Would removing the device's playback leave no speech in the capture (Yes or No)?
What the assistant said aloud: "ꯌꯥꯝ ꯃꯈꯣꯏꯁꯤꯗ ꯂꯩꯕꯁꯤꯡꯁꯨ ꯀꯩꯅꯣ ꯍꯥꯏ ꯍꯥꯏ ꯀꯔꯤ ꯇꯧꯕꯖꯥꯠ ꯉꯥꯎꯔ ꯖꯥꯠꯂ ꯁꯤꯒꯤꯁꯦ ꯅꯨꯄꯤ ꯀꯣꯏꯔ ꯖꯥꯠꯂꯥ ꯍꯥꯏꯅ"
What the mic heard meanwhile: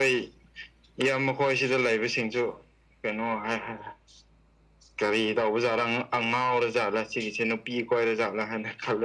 Yes